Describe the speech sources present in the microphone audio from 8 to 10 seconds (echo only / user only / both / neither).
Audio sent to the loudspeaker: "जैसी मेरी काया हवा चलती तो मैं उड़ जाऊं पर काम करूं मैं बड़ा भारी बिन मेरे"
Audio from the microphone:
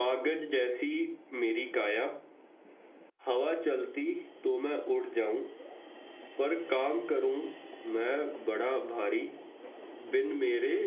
echo only